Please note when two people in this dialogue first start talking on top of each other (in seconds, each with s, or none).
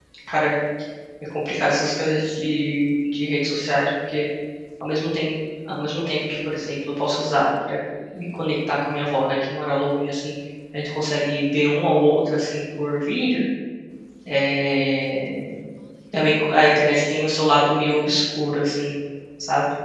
none